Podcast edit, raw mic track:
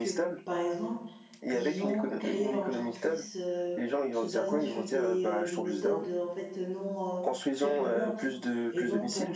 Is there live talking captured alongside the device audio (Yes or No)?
Yes